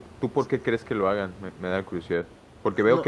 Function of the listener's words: listening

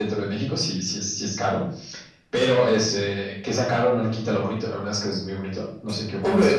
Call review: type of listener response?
taking over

